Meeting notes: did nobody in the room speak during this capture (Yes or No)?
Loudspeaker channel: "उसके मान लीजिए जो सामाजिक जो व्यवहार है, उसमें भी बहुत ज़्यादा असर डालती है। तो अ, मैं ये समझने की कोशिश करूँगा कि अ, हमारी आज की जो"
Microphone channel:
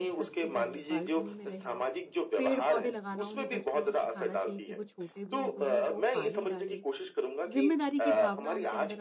No